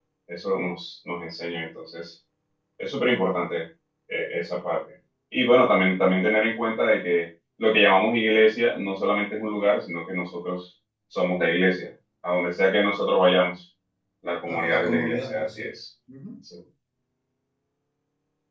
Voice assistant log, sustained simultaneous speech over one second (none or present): present